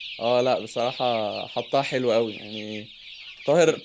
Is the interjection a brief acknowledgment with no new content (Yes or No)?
Yes